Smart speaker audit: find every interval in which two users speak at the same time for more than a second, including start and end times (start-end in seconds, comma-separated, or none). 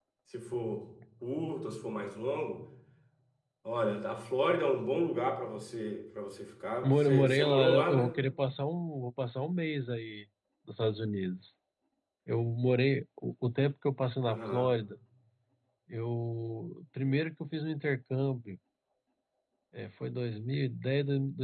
6.8-8.2